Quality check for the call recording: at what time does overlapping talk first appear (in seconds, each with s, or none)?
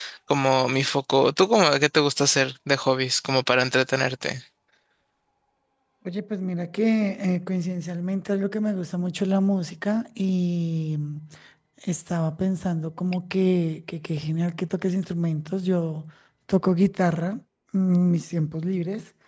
none